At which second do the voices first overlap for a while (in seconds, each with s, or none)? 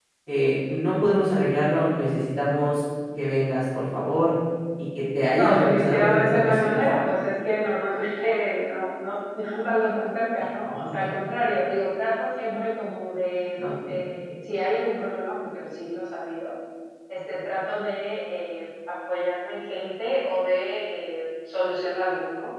5.4 s